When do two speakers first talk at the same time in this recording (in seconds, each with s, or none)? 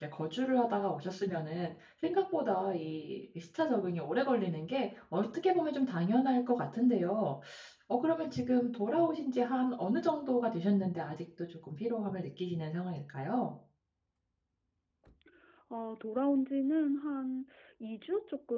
none